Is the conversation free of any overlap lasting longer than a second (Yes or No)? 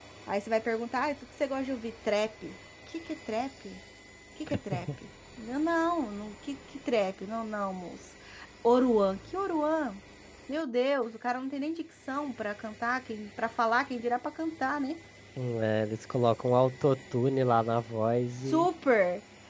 Yes